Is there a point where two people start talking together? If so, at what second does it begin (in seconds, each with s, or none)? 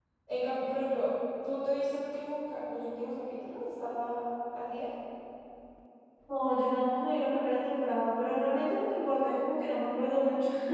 none